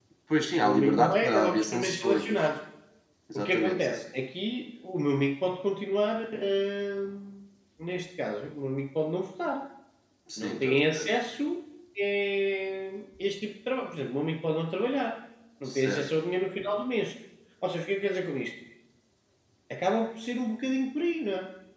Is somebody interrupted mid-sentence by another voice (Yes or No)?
Yes